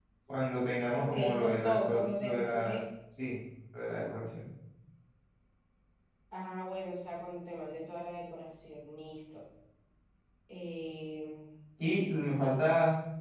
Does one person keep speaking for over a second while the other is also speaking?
Yes, from 0.9 s

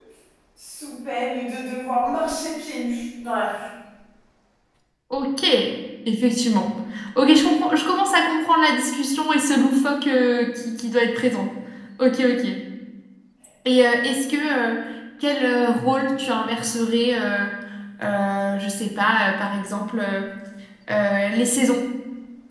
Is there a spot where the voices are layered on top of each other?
No

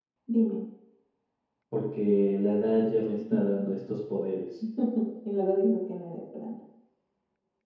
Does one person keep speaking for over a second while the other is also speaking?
No

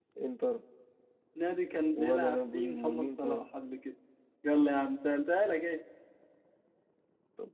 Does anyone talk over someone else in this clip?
Yes, from 1.9 s

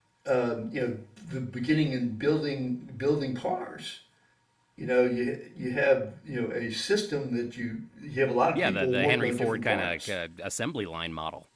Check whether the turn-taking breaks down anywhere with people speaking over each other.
Yes, from 8.5 s

